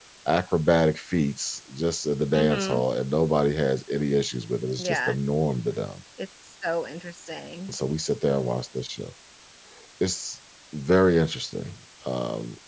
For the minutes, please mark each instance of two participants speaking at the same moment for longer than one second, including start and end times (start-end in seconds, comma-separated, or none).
none